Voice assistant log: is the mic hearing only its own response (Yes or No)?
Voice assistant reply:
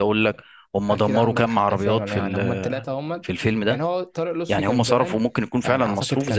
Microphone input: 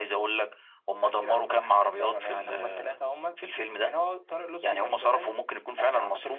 Yes